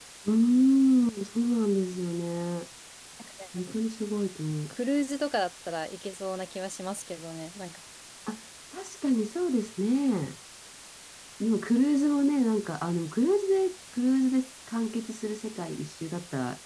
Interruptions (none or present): none